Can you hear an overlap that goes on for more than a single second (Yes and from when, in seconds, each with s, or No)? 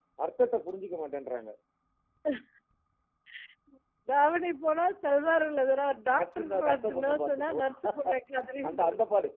Yes, from 6.2 s